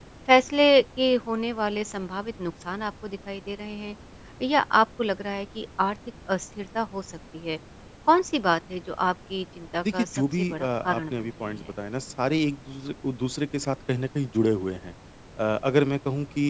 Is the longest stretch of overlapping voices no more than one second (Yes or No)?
No